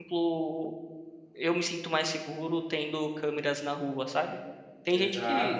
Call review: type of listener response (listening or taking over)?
listening